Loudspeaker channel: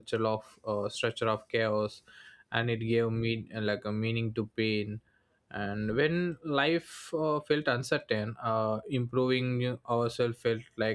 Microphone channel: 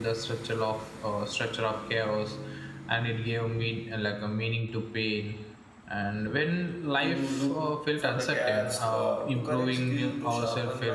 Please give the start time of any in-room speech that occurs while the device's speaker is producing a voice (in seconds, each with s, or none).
7.0 s